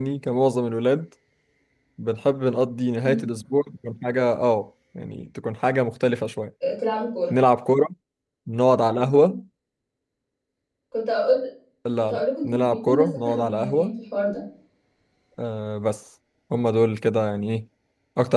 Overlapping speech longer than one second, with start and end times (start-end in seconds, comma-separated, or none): 12.0-13.9